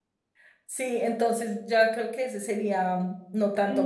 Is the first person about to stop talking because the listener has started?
Yes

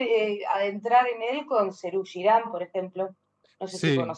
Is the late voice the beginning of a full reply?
Yes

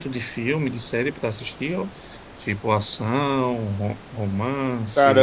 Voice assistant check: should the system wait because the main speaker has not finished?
No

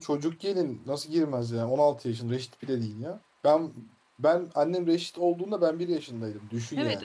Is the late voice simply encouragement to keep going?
No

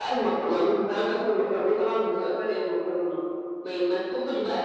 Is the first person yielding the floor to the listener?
No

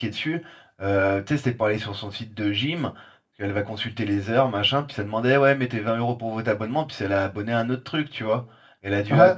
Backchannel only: Yes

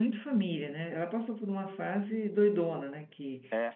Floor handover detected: No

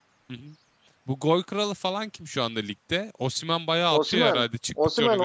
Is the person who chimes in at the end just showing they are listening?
No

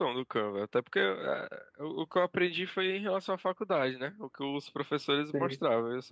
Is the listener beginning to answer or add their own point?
No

